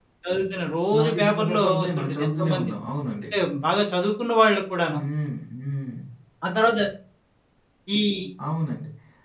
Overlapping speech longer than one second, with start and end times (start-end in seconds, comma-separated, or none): 1.0-2.7